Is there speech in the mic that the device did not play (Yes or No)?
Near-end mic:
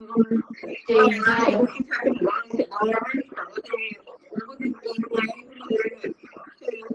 Yes